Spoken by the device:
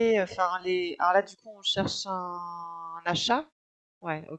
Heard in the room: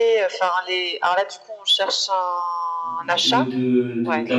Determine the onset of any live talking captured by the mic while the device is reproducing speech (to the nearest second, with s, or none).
3 s